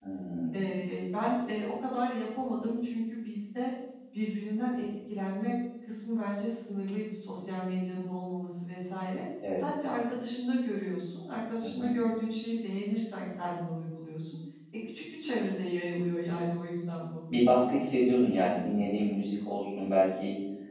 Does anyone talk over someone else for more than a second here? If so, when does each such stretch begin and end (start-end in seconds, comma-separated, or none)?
none